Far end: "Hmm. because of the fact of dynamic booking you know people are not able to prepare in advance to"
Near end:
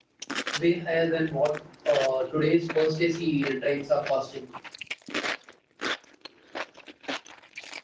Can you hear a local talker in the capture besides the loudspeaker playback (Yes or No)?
Yes